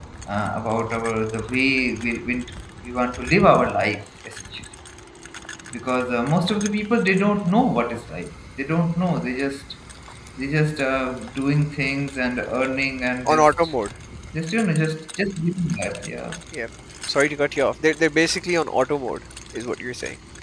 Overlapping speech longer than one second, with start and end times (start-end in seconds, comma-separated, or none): none